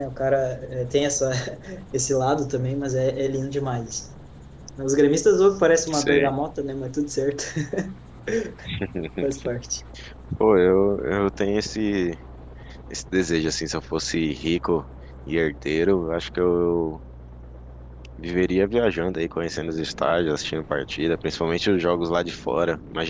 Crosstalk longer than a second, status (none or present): none